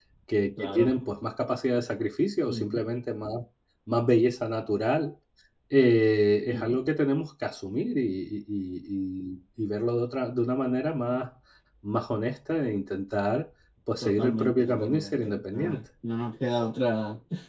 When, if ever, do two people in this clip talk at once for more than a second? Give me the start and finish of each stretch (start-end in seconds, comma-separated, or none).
14.0-15.8